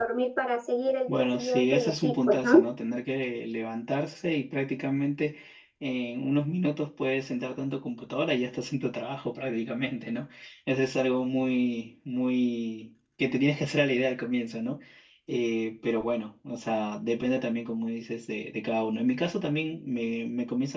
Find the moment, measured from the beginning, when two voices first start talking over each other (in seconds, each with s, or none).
1.1 s